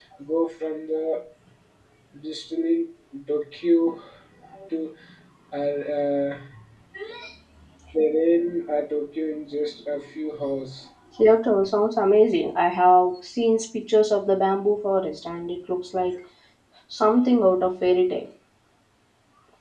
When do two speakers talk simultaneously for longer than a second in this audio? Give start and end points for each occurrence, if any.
none

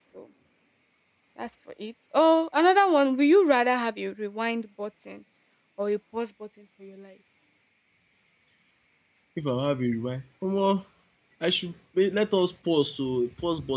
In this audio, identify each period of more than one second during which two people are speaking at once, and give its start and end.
none

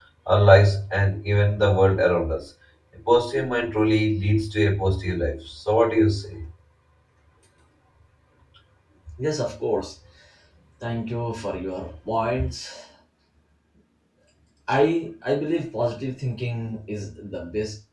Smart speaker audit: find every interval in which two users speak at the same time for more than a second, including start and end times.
none

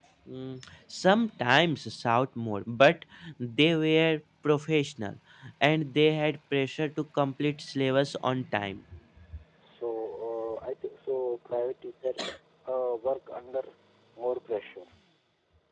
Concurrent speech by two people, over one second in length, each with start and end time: none

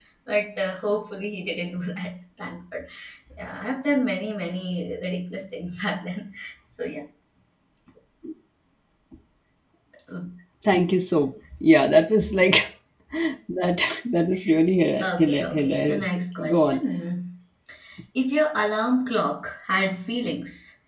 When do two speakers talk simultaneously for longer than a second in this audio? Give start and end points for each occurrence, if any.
15.0-16.8

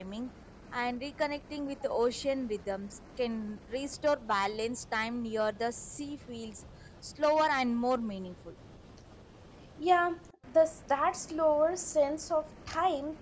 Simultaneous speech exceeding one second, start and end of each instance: none

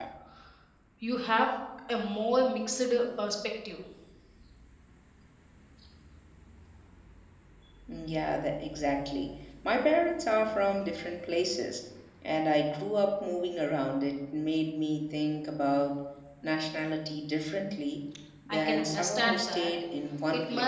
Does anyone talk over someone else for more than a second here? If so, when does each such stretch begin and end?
18.5-19.7

